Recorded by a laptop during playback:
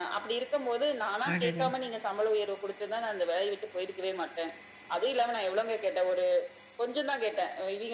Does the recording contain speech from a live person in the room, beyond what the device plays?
Yes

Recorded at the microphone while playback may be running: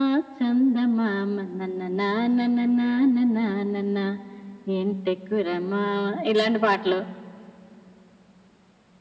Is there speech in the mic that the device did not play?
No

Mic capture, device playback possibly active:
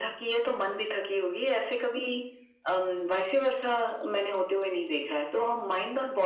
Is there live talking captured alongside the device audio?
No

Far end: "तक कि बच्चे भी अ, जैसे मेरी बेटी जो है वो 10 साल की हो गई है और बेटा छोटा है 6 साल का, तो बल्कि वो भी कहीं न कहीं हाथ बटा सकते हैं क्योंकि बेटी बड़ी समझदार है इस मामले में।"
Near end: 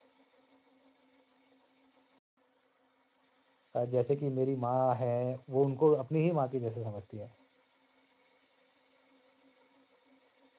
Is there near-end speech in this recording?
Yes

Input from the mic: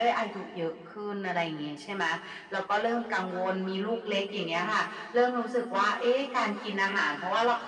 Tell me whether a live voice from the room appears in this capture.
No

